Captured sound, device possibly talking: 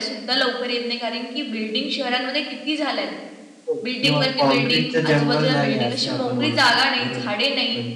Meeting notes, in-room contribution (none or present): present